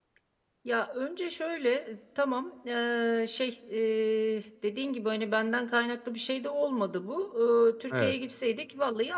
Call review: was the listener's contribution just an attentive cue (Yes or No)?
Yes